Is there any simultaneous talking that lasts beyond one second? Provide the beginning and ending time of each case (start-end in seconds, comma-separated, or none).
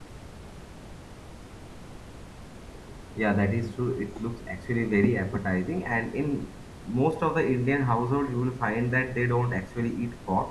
none